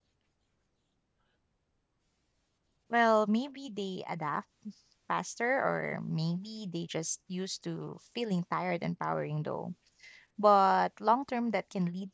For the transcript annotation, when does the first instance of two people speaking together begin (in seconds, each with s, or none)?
none